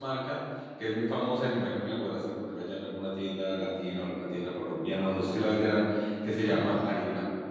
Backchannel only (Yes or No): Yes